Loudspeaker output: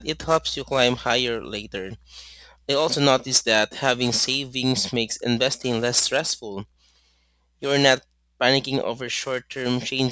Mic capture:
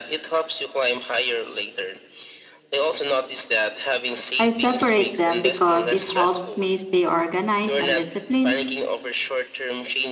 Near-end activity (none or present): present